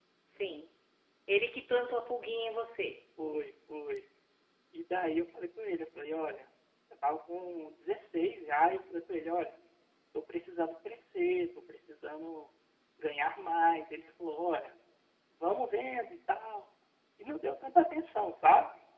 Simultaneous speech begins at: none

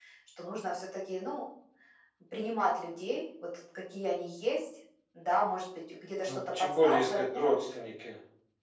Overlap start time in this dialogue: 6.2 s

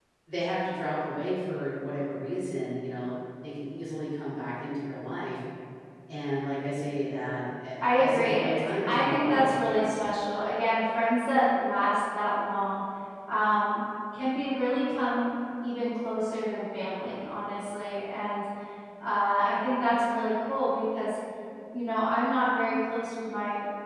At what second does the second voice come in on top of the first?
7.8 s

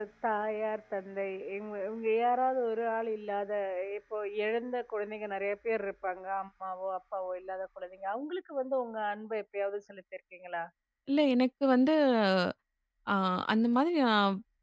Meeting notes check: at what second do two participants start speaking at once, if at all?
none

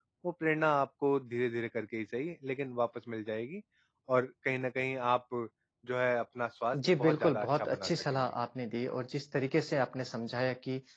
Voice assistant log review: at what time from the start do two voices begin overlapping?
6.7 s

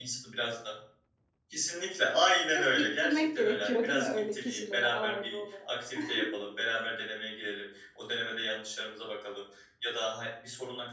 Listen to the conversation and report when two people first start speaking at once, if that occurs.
2.5 s

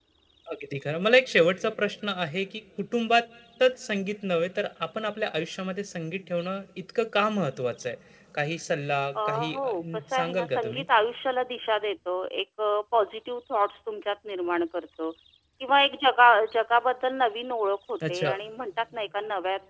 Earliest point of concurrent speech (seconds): 9.2 s

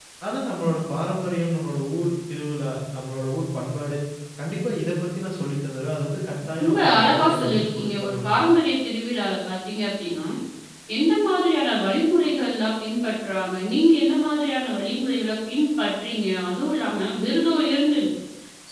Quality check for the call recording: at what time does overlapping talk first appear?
6.6 s

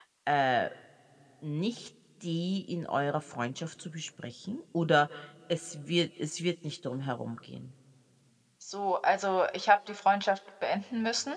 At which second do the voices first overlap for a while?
none

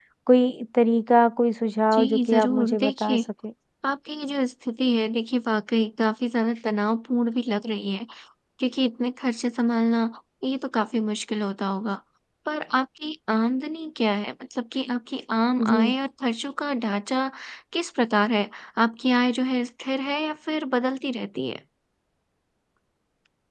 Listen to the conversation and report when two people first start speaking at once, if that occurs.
1.9 s

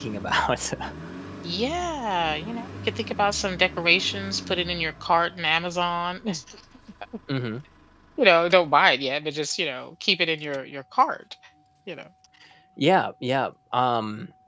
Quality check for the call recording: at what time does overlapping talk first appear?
none

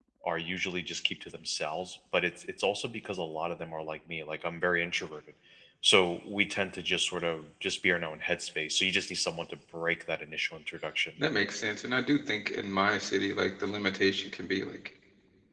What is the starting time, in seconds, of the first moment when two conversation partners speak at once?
none

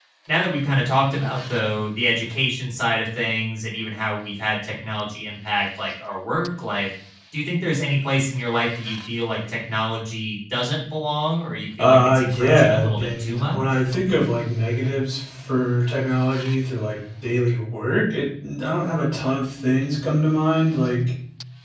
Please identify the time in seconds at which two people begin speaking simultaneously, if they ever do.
11.8 s

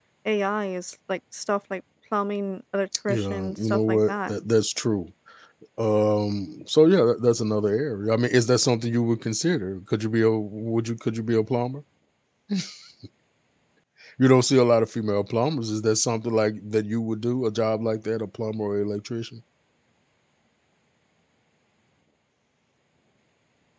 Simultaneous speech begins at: 3.1 s

